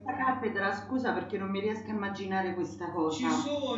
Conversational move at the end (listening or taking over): taking over